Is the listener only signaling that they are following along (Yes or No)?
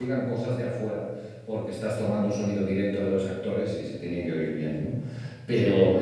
Yes